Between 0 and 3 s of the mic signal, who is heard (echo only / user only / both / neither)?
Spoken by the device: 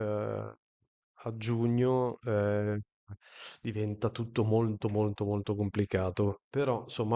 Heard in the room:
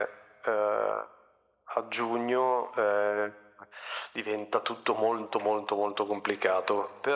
echo only